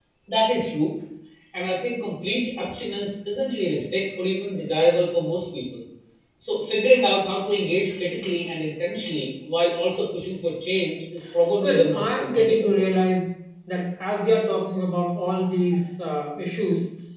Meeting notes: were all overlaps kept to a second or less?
No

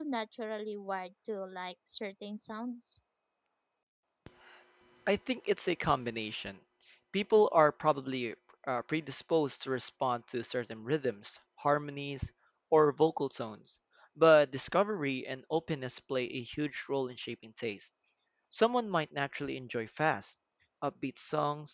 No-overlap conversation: Yes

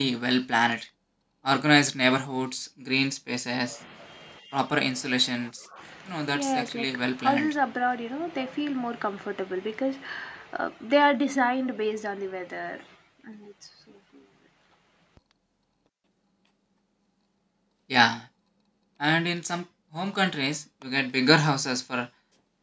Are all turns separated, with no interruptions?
No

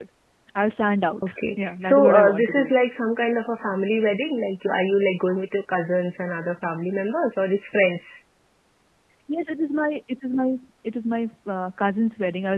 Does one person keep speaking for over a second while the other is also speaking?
Yes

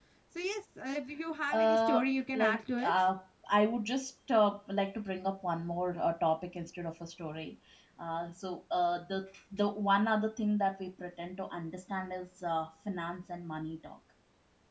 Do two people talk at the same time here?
Yes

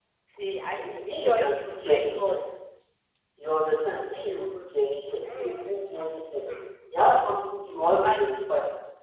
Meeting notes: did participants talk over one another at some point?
Yes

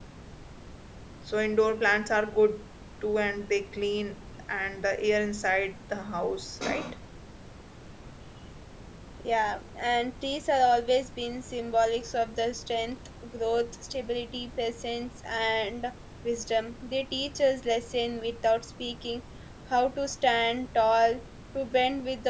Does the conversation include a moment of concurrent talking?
No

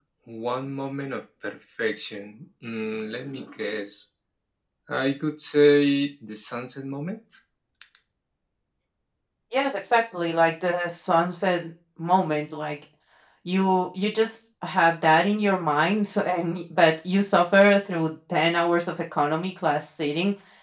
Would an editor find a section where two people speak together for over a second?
No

